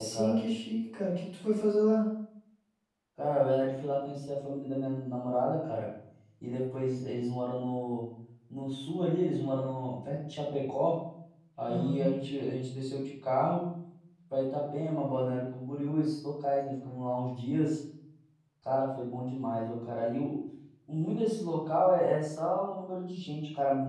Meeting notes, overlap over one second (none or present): none